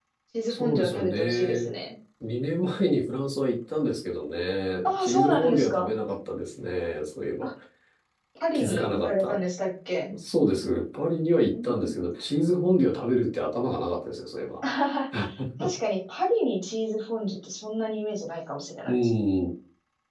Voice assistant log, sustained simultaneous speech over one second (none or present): present